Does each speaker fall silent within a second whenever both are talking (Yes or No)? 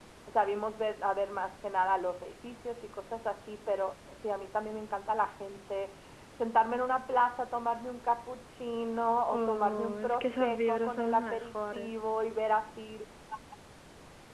No